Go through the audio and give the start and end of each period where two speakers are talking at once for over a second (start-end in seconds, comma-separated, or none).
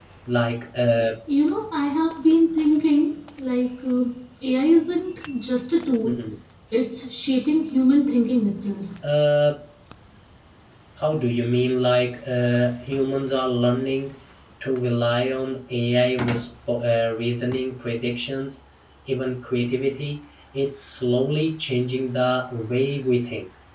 none